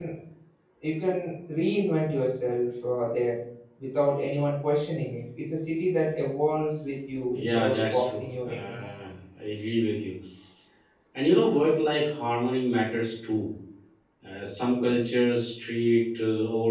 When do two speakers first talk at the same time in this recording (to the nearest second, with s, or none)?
7 s